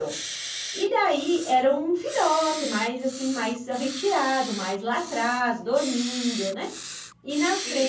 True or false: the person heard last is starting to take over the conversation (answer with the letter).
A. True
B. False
B